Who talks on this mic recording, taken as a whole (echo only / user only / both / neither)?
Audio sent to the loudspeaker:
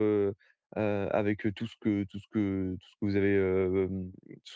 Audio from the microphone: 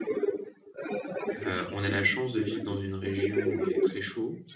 both